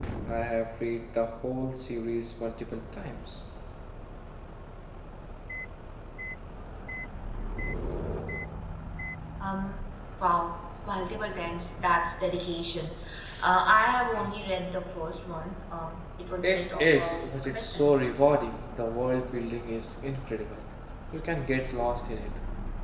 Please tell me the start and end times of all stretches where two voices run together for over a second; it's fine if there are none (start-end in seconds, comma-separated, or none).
16.4-17.9